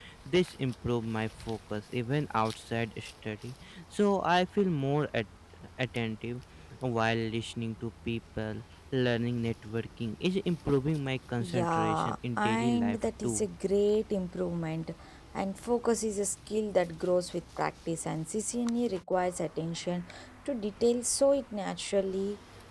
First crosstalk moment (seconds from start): 11.4 s

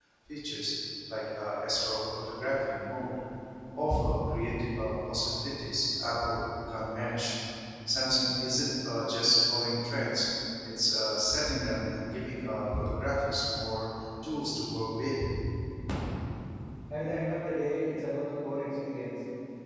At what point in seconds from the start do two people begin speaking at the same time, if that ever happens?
none

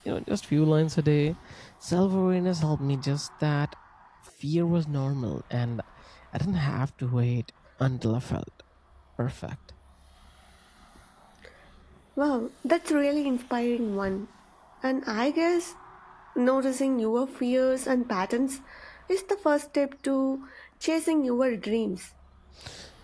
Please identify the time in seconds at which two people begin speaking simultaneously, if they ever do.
none

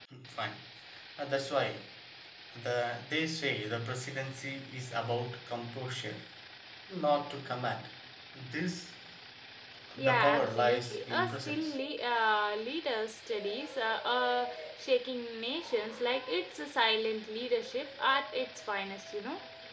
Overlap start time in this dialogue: 10.0 s

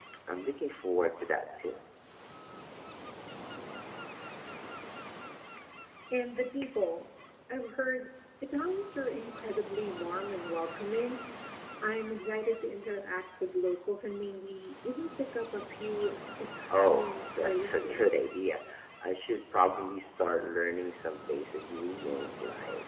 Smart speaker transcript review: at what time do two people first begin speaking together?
16.7 s

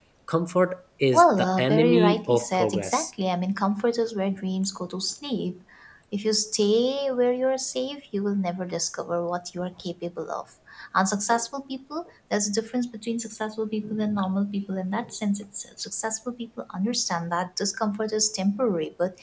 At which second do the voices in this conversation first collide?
1.1 s

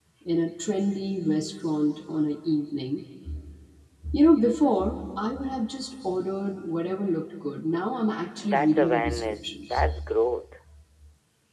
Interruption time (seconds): 8.5 s

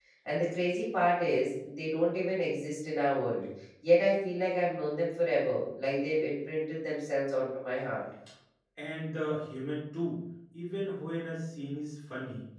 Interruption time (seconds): none

